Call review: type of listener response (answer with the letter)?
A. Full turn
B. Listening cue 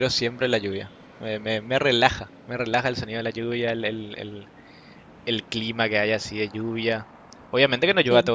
B